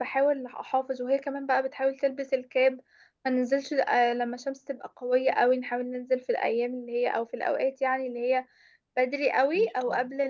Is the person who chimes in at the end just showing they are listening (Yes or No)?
Yes